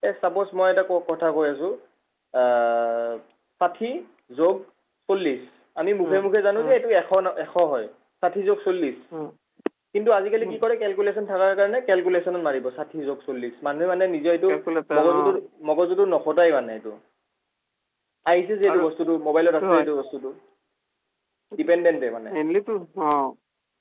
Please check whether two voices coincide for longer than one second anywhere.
No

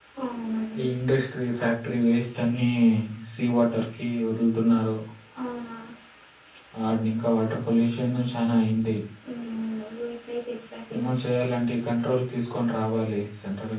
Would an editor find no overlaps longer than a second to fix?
Yes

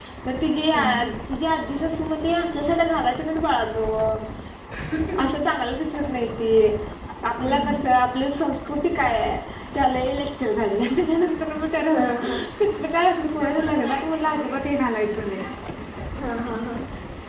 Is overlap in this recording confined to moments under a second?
Yes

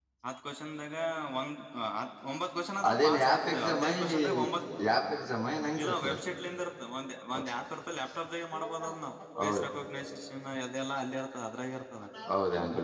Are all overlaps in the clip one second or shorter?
No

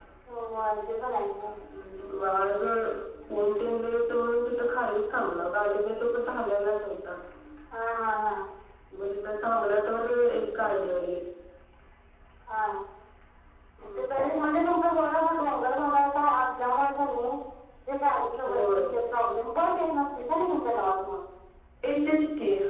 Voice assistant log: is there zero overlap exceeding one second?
Yes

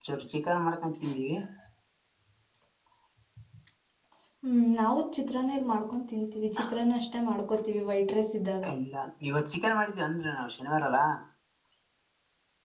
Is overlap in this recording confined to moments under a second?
Yes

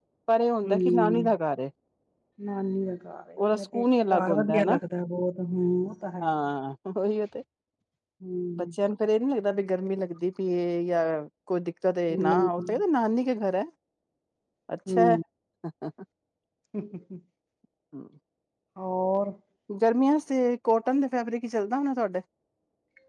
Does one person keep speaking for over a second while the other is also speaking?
Yes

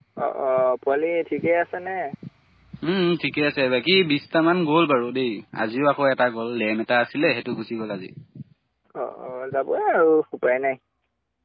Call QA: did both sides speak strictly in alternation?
Yes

